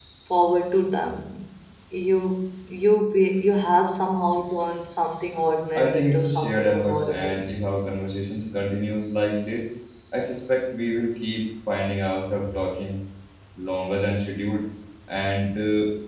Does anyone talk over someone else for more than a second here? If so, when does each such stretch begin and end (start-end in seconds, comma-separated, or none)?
5.8-7.4